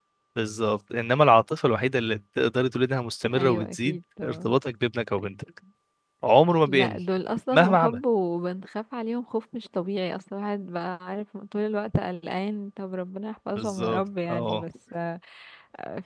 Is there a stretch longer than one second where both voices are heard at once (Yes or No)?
Yes